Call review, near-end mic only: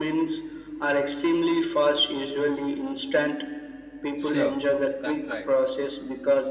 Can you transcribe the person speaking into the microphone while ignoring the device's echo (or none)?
Sure, that's right.